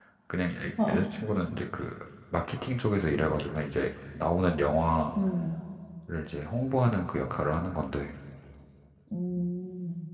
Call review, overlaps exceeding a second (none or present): none